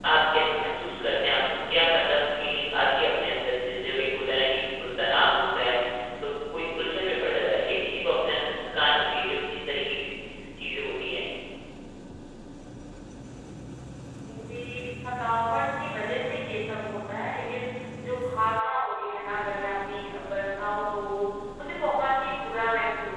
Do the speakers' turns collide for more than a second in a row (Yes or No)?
No